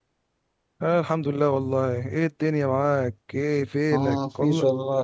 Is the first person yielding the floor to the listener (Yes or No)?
Yes